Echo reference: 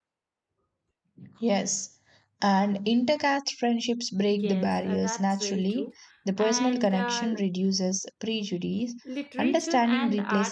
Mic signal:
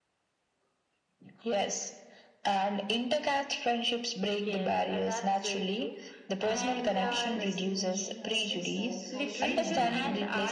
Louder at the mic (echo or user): echo